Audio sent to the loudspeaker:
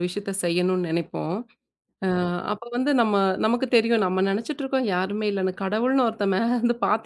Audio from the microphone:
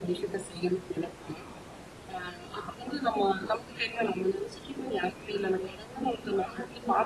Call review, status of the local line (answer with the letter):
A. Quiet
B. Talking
A